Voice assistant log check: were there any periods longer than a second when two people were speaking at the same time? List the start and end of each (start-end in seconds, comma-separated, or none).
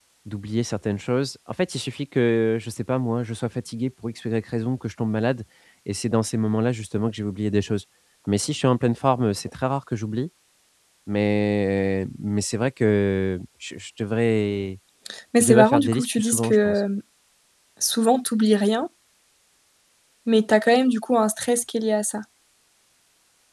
15.4-16.8